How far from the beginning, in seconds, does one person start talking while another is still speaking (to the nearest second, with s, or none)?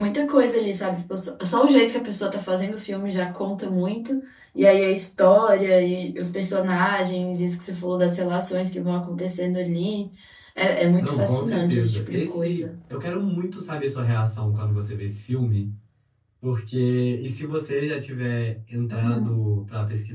11 s